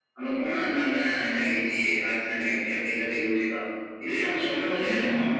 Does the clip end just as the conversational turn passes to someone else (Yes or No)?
No